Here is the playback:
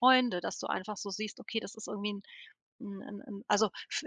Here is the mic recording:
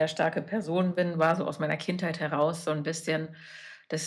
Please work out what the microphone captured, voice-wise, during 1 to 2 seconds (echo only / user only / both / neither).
user only